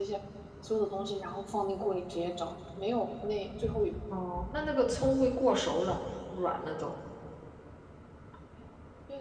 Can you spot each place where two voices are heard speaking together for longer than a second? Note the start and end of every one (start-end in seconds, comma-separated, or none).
none